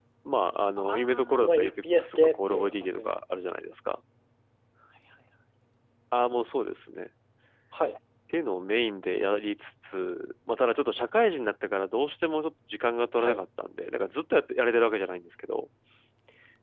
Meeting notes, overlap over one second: present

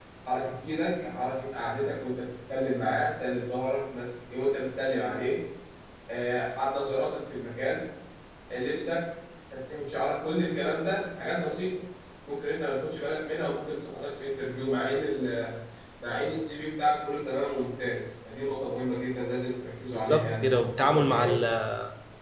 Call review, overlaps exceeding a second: present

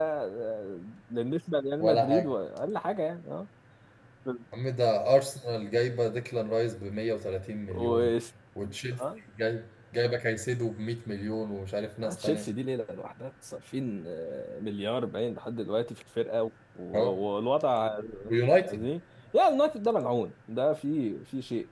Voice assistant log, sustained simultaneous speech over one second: none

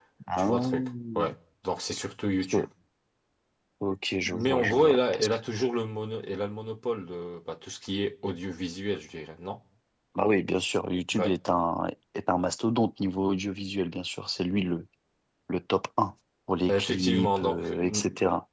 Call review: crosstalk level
present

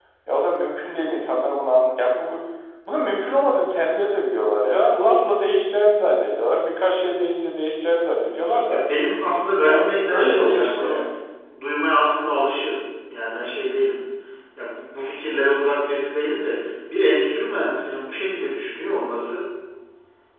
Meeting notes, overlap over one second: present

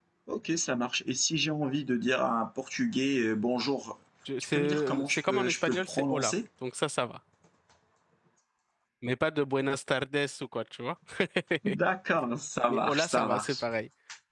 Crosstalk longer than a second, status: present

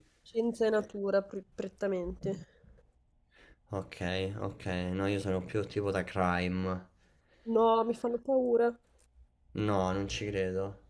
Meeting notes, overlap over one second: none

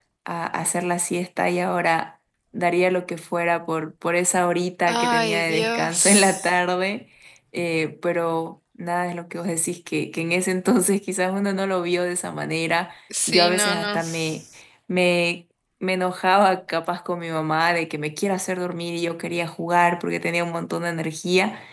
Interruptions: present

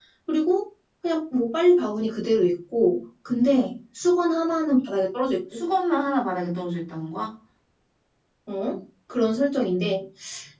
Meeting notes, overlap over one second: none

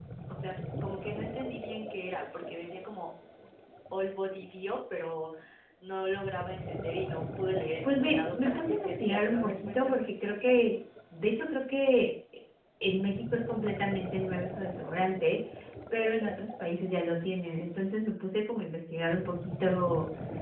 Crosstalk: present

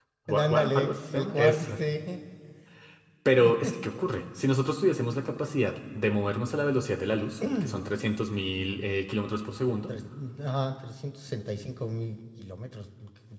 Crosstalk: present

